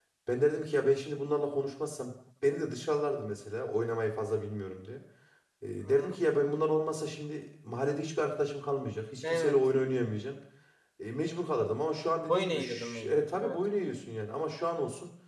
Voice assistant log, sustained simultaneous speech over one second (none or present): present